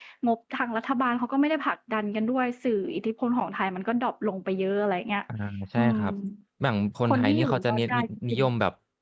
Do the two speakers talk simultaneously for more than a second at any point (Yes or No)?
Yes